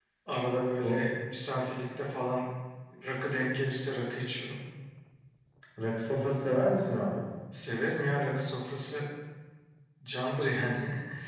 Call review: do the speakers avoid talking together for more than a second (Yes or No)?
Yes